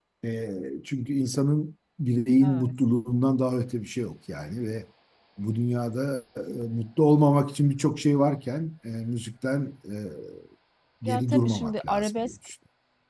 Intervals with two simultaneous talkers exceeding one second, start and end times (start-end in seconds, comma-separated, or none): 11.1-12.3